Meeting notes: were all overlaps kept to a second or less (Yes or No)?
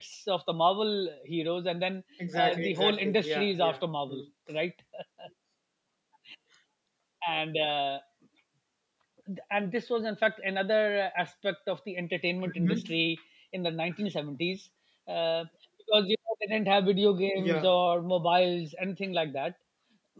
No